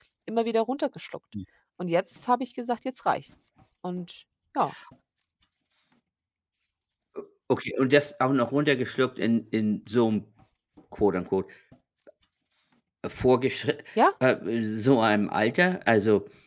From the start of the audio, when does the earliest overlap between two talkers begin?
none

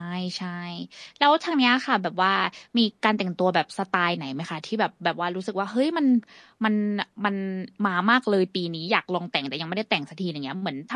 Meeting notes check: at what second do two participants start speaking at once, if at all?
none

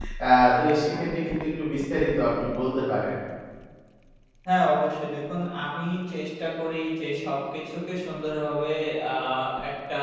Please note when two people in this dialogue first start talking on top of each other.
none

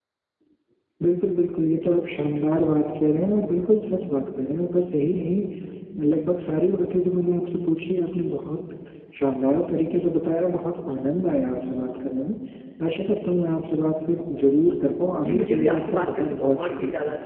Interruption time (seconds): 15.2 s

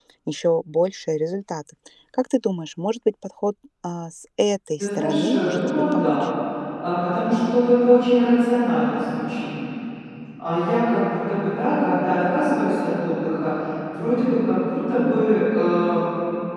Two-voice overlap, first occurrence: 4.8 s

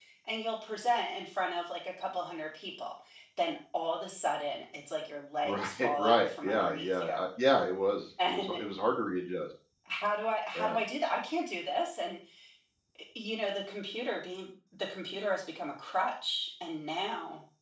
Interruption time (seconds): 5.4 s

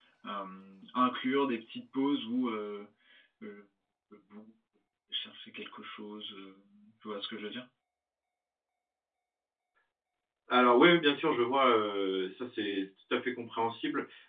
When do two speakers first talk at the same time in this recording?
none

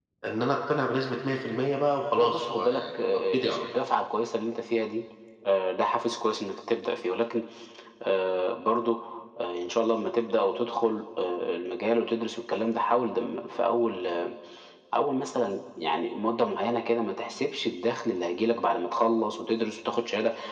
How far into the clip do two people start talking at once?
2.2 s

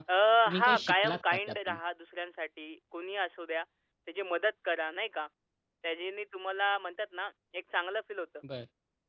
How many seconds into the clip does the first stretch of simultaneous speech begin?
0.6 s

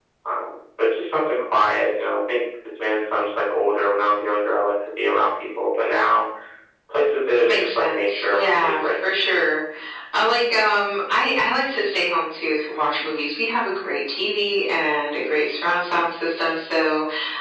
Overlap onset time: 7.4 s

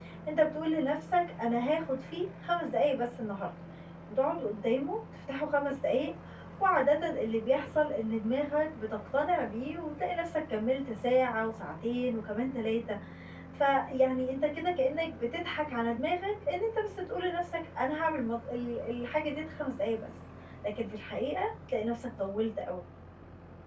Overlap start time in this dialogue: none

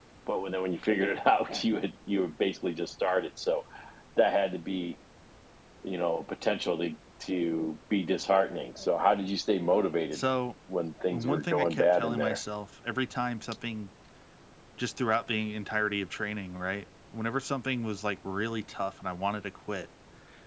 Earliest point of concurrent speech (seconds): 11.1 s

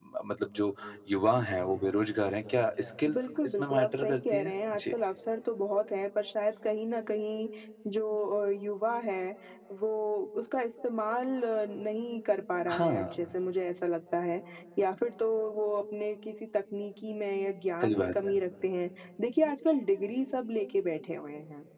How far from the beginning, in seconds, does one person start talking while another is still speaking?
3.1 s

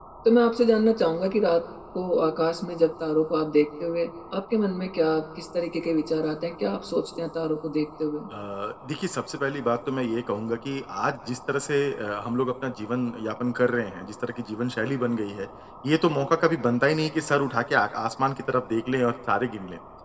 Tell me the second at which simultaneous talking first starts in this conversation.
none

